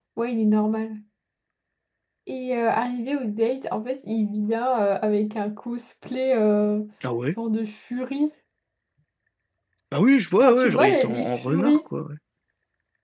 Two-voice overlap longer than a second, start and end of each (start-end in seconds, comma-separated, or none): 10.4-11.8